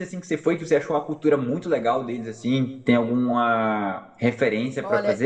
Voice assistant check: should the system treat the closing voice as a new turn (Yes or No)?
Yes